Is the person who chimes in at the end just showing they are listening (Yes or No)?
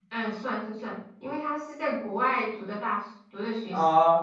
No